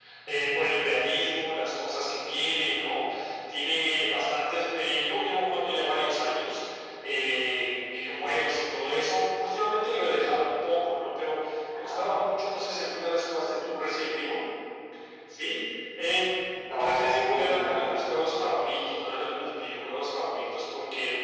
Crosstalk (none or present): present